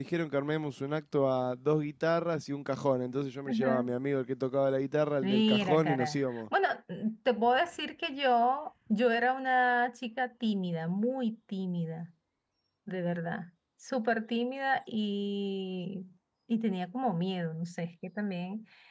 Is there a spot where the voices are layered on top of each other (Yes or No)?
Yes